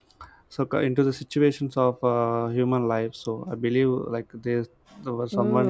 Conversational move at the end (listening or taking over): taking over